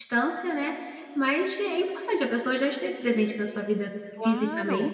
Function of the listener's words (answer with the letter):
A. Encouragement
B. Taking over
B